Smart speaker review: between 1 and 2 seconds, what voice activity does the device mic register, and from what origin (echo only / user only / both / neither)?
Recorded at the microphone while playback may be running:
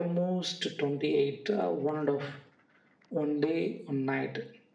echo only